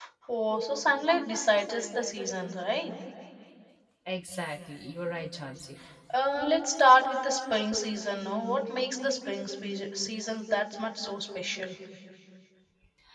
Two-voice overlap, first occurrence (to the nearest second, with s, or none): none